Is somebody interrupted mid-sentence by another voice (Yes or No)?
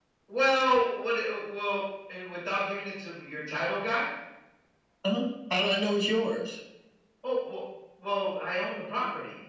No